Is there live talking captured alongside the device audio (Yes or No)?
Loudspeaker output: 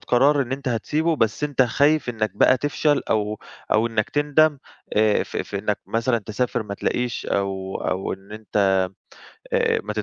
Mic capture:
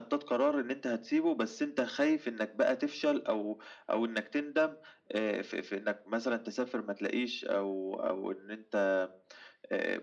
No